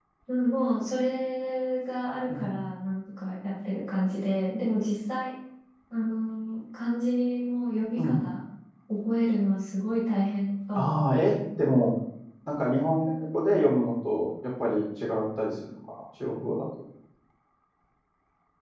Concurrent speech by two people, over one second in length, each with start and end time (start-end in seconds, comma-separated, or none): none